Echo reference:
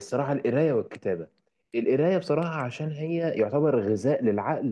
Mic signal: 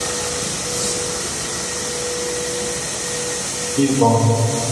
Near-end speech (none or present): present